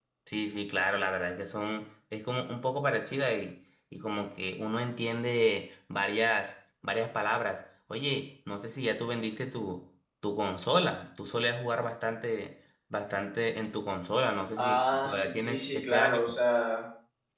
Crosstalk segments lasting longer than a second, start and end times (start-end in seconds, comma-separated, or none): 14.6-16.3